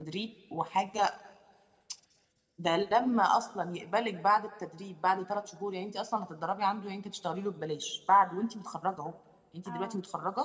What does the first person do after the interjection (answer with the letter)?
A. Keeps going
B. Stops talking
A